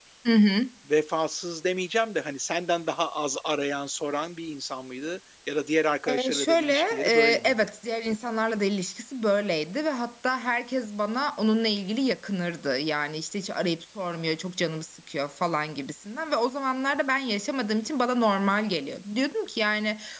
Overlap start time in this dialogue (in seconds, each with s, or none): 6.1 s